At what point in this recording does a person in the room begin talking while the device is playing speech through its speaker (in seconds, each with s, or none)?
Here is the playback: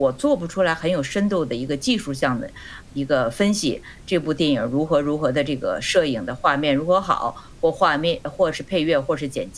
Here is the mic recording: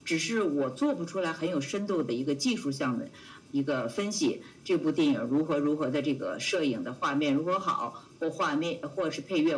none